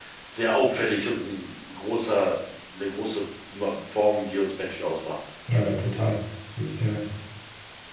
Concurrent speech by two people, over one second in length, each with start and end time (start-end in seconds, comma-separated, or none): none